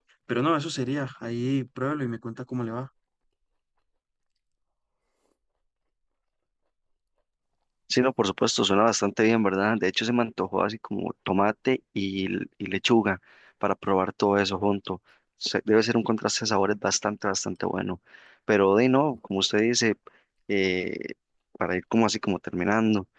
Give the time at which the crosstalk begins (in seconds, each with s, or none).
none